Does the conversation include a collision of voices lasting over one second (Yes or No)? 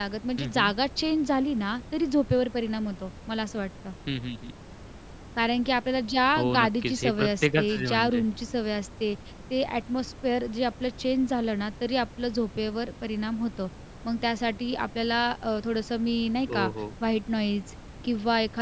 Yes